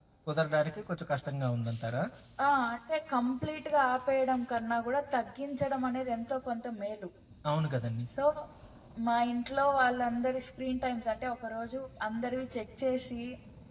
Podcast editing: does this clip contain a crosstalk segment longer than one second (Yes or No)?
No